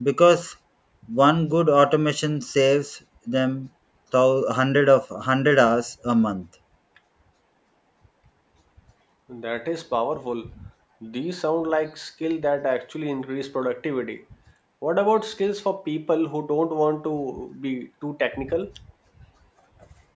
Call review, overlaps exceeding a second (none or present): none